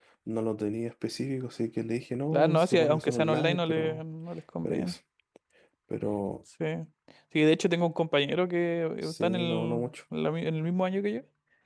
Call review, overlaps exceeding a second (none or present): present